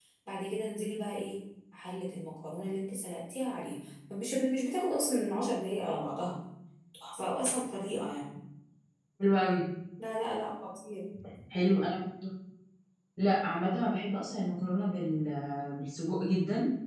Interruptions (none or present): none